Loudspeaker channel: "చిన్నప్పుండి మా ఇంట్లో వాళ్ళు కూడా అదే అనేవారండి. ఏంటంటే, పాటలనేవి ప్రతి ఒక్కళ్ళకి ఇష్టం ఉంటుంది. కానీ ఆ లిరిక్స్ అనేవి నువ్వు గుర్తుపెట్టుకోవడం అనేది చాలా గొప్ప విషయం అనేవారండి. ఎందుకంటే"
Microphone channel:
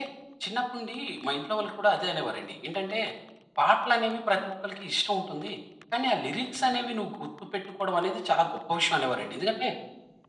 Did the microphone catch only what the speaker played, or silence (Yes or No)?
Yes